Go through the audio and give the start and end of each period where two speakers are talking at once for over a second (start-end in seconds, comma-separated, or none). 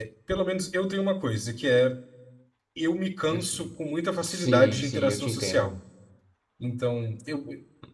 4.2-5.7